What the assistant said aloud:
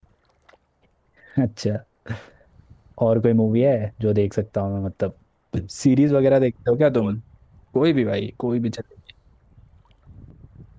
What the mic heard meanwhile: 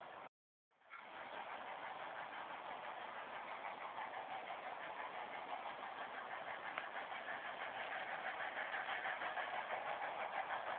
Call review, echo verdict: none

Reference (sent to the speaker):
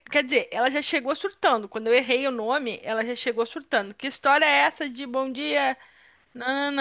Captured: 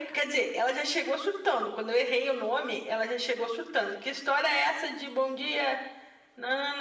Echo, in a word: present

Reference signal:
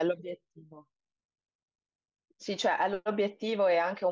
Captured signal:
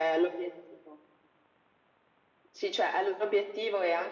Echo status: present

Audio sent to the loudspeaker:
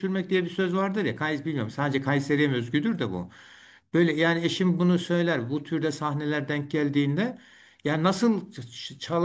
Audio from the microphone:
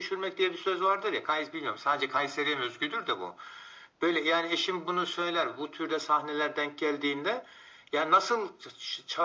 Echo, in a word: present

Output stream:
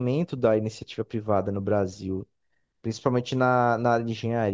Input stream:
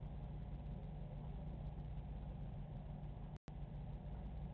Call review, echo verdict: none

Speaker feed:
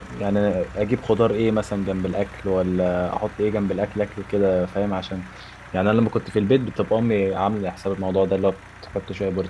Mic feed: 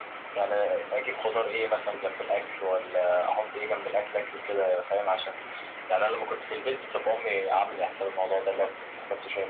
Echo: present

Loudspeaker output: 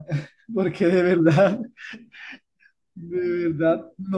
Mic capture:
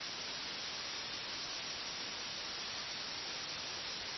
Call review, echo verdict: none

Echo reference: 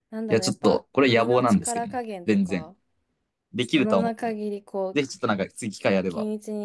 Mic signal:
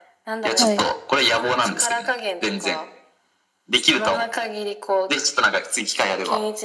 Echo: present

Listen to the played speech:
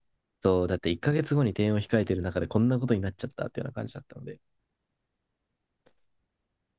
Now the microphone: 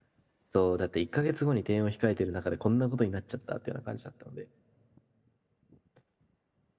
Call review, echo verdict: present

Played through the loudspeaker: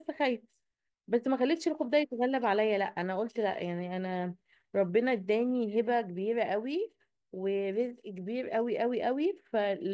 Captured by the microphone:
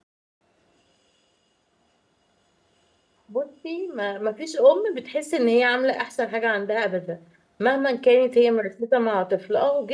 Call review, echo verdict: none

